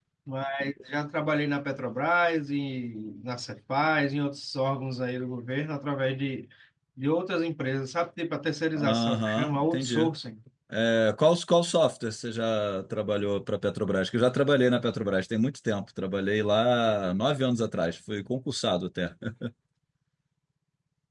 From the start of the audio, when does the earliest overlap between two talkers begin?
8.8 s

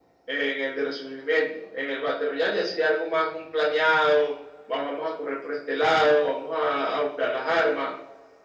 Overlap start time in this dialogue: none

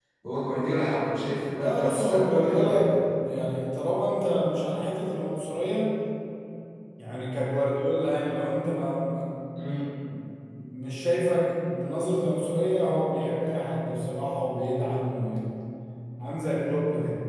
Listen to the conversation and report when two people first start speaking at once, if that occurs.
1.6 s

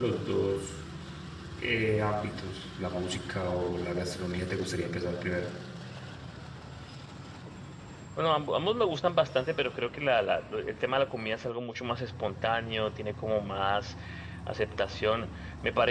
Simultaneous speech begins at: none

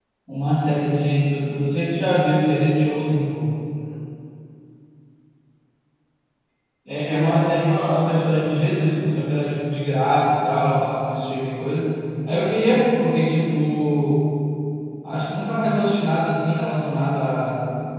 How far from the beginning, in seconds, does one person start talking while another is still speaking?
7.1 s

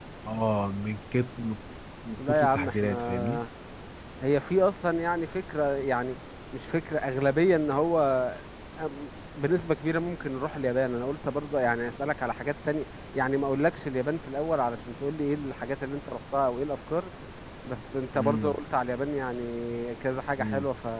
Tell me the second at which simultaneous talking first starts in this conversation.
2.2 s

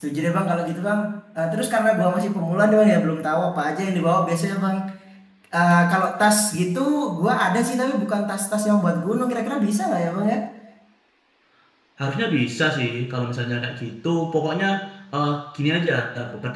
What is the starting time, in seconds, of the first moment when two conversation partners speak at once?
none

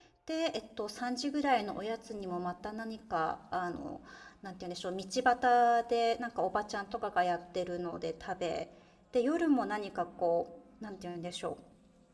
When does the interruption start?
none

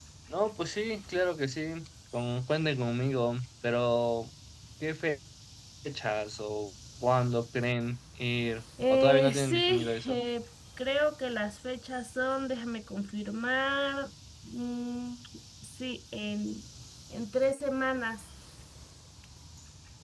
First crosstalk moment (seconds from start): 8.8 s

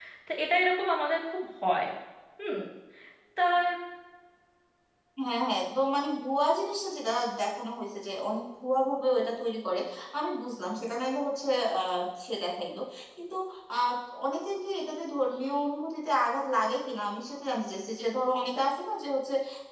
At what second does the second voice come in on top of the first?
none

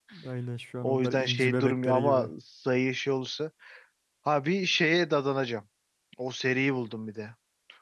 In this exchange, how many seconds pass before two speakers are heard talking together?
0.8 s

